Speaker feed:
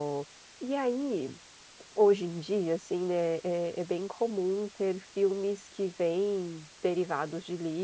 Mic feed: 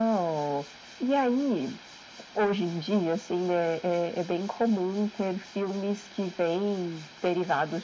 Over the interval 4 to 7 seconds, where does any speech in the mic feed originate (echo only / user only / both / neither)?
echo only